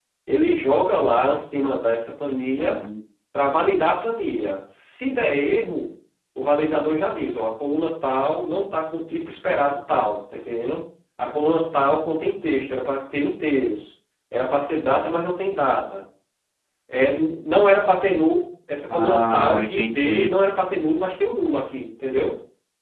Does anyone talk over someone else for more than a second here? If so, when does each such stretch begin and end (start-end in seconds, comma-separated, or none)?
18.9-20.3